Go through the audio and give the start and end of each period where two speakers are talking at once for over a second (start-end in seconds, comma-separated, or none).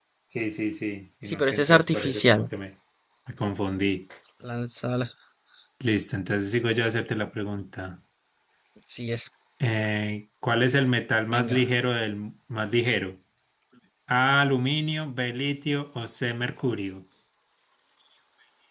1.2-2.5